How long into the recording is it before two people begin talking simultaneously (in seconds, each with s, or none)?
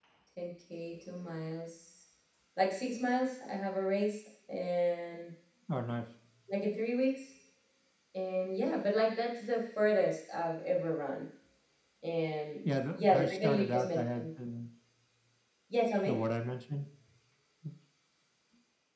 12.9 s